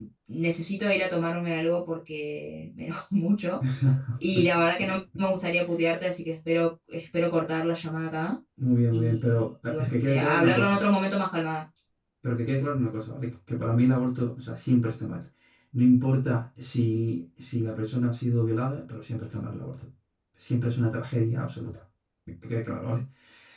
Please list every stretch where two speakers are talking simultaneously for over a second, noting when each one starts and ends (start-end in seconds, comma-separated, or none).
8.9-10.8